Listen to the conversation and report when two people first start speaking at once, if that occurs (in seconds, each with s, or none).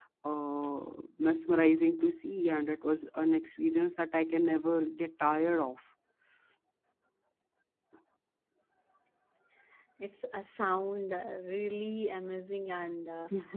none